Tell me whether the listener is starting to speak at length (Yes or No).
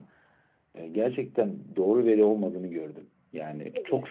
Yes